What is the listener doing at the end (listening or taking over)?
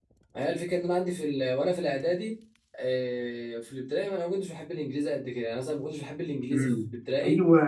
taking over